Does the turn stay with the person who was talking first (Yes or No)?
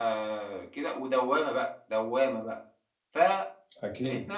Yes